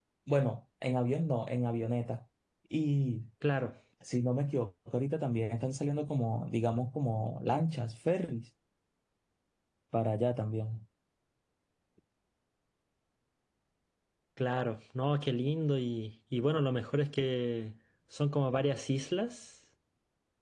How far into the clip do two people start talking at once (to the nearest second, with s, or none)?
none